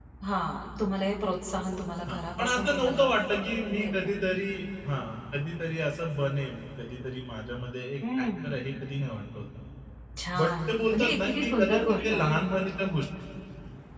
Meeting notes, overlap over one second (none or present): present